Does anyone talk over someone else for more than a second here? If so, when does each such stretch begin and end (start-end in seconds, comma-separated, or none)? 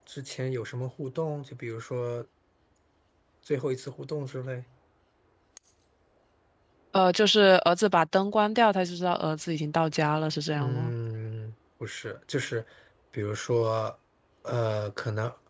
none